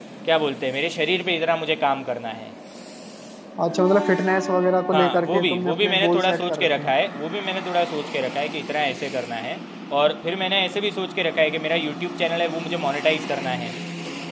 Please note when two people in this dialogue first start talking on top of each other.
5 s

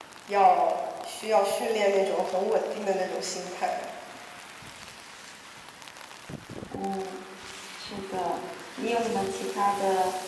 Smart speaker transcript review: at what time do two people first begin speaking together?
none

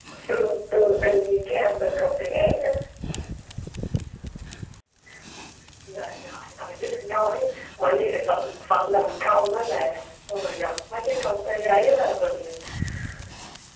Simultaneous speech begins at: none

